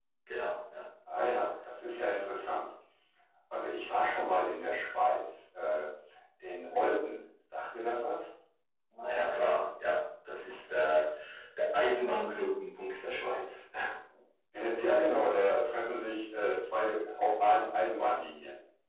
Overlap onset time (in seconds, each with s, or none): none